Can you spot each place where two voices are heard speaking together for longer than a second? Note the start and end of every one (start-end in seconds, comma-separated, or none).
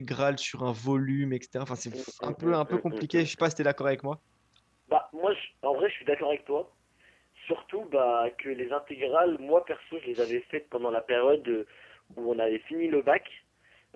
1.9-3.5